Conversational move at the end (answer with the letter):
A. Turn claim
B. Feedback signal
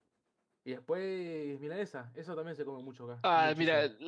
A